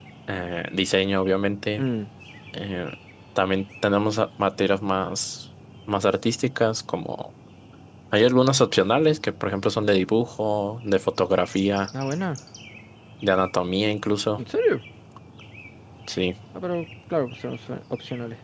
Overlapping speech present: No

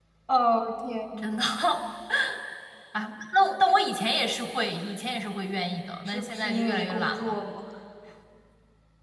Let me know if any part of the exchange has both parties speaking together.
Yes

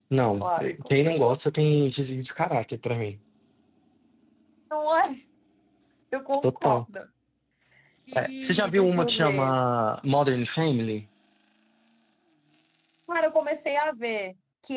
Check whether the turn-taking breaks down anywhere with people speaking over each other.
Yes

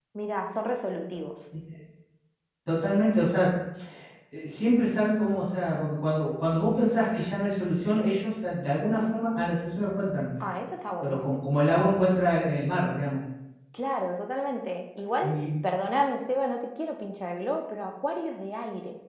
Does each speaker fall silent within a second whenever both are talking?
Yes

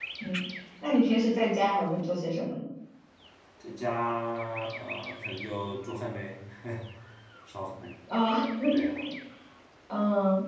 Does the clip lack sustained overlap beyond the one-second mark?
Yes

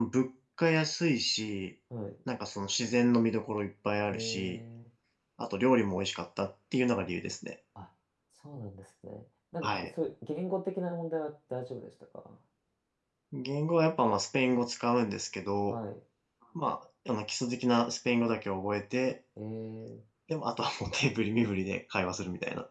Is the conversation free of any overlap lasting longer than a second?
Yes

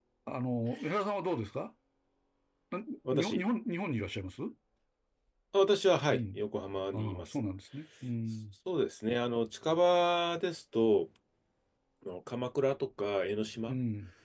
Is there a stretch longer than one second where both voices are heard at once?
No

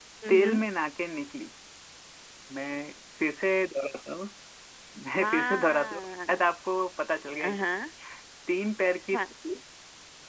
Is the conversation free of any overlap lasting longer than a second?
No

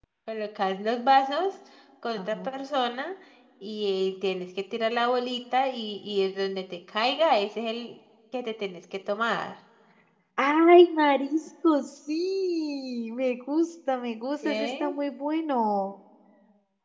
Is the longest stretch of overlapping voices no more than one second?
Yes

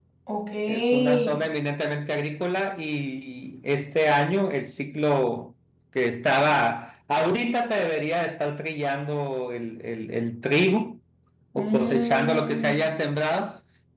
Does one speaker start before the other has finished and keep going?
Yes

